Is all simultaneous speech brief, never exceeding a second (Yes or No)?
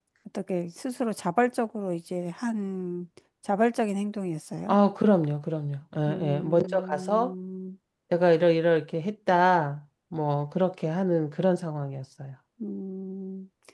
No